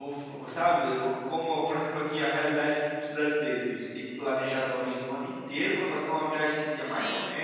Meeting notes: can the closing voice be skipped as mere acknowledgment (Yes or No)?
Yes